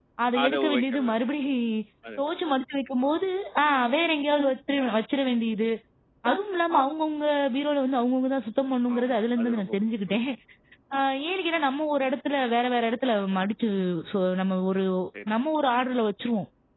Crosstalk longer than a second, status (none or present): present